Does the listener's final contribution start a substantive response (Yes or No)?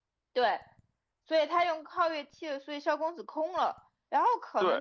No